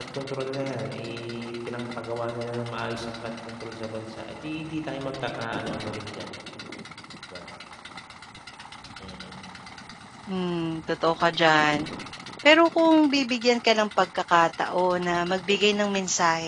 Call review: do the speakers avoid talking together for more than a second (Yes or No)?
Yes